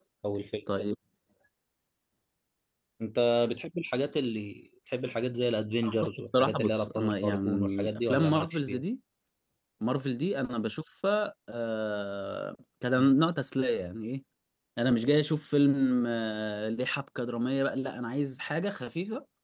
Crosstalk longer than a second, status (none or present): present